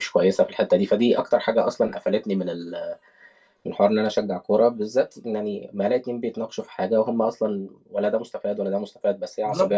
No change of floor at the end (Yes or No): Yes